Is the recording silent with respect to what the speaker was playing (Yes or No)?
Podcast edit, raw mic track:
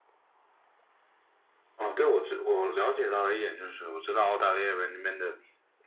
No